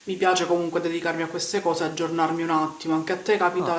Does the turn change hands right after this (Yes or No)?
Yes